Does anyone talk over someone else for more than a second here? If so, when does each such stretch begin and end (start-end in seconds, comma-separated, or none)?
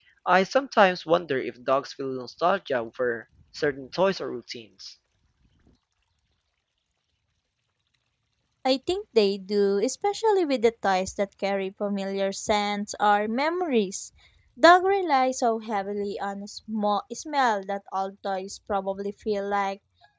none